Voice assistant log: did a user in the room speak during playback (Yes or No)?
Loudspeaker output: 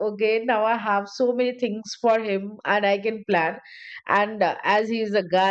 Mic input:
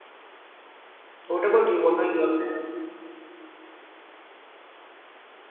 Yes